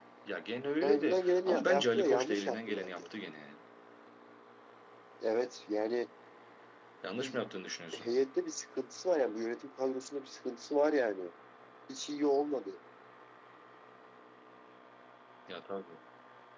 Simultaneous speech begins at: 0.8 s

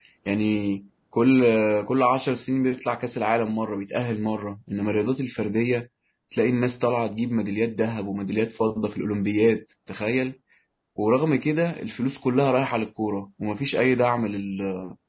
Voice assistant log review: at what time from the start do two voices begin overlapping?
none

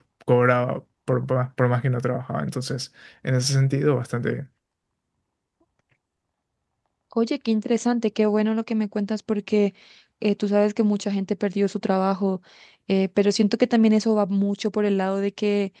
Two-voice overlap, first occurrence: none

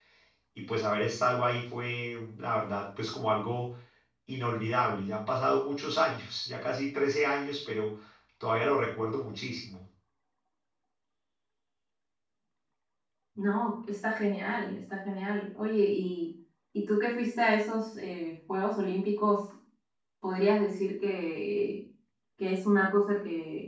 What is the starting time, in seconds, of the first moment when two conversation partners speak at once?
none

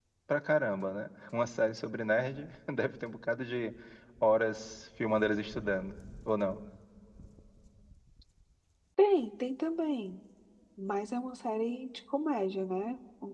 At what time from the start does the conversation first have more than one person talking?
none

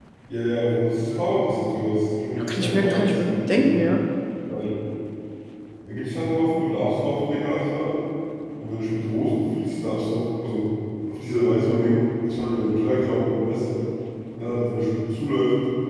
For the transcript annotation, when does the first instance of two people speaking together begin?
2.4 s

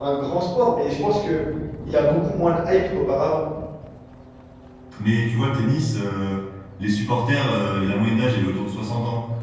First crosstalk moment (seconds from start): none

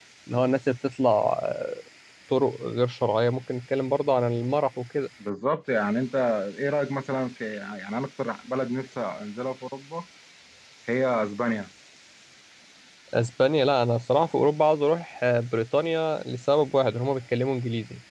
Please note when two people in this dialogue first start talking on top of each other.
none

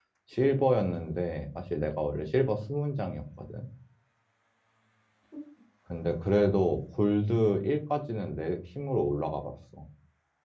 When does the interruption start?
none

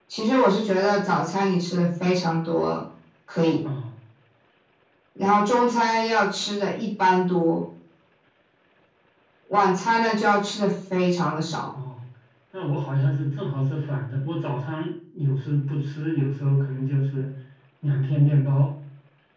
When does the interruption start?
none

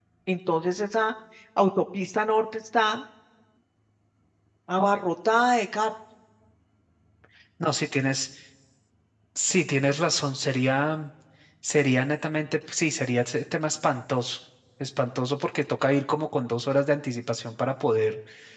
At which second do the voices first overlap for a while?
none

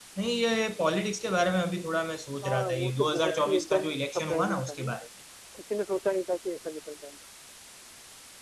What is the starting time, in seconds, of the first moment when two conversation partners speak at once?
2.4 s

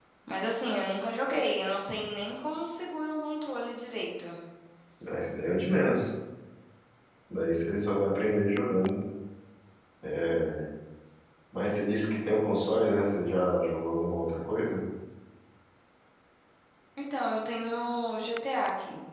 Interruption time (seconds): none

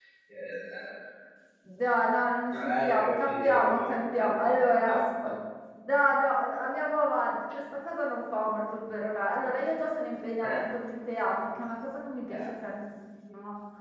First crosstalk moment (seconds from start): 2.5 s

